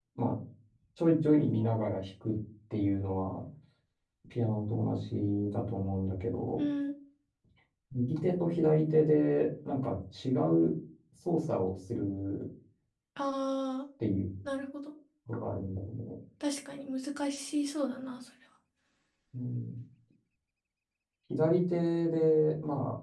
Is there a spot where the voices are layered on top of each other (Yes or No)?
No